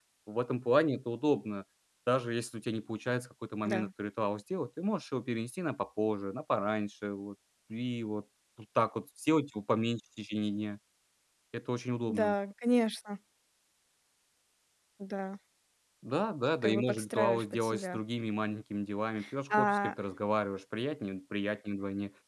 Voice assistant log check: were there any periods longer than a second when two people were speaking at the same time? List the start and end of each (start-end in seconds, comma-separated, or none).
16.6-18.0